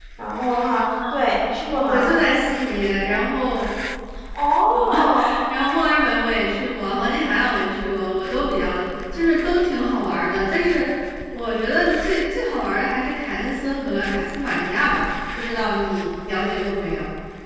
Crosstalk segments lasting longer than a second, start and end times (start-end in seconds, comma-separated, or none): none